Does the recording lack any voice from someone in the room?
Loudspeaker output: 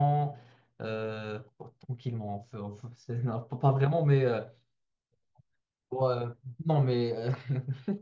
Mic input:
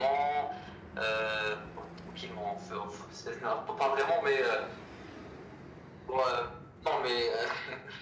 Yes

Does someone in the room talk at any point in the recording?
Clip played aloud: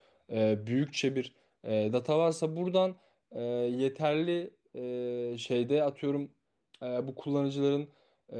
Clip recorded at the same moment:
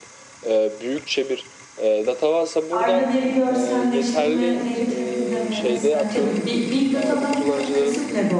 Yes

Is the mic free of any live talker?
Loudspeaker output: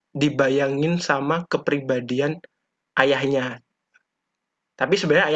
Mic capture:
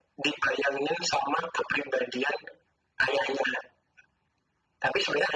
Yes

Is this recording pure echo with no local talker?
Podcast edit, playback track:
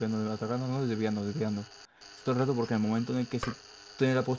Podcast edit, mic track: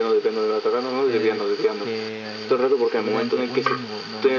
No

